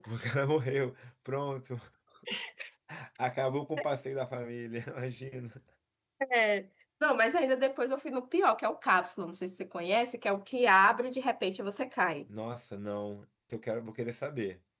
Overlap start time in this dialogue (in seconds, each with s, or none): none